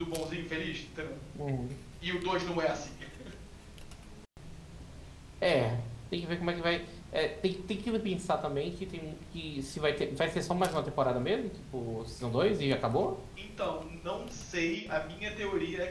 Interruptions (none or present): none